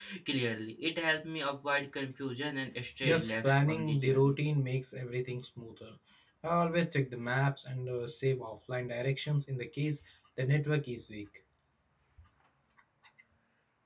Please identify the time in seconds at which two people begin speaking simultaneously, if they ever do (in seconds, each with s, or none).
3.0 s